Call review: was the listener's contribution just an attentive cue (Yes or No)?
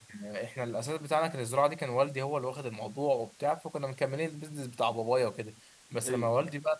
Yes